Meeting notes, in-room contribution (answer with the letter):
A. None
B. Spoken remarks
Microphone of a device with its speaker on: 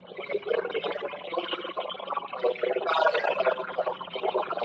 A